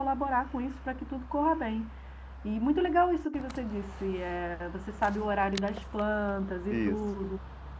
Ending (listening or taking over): listening